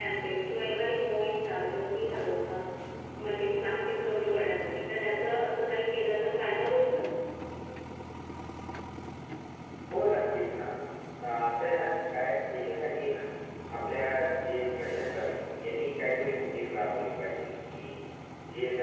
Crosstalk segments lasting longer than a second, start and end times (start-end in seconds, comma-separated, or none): none